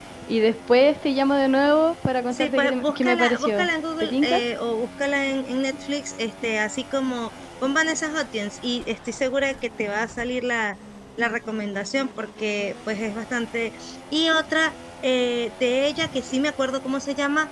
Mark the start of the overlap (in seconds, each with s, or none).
2.3 s